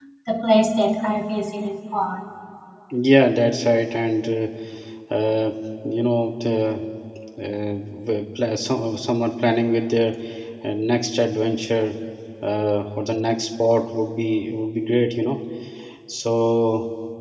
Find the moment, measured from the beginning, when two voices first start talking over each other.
none

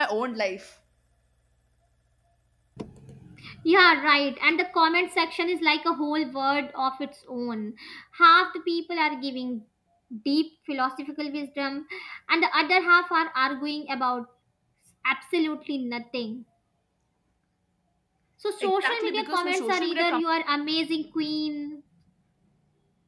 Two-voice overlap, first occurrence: 18.6 s

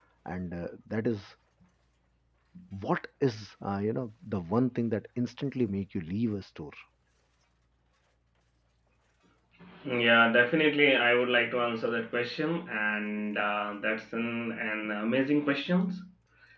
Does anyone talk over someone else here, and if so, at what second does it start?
none

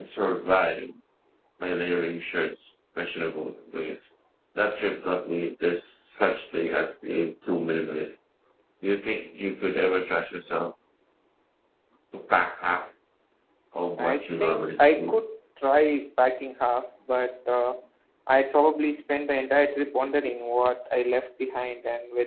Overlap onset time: 14.0 s

